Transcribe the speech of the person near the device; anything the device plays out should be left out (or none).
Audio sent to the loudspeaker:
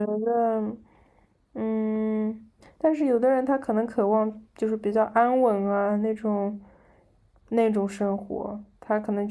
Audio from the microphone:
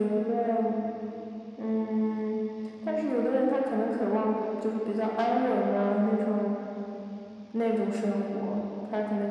none